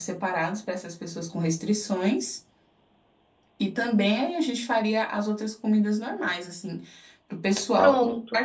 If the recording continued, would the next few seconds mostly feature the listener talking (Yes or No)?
No